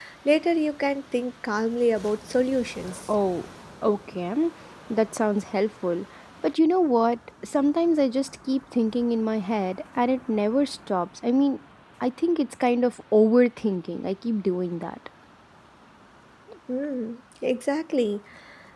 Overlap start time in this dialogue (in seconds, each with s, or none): none